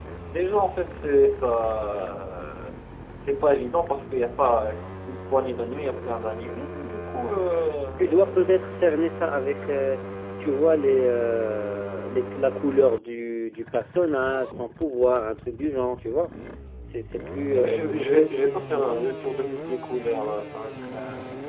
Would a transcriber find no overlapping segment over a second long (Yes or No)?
Yes